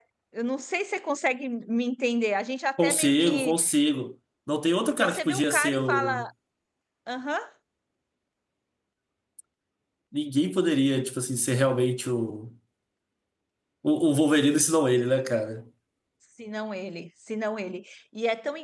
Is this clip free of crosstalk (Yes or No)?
No